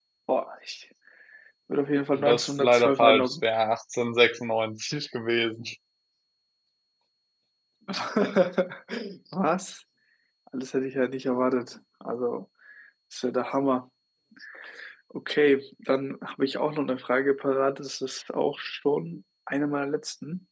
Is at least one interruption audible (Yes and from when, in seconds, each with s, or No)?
Yes, from 2.2 s